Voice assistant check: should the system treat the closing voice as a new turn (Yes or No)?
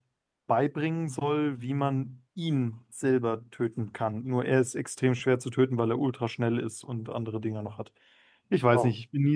No